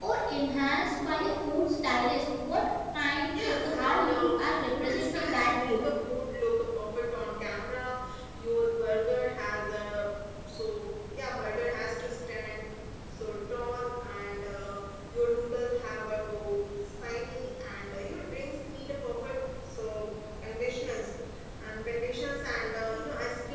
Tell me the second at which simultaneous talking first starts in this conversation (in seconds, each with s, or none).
3.3 s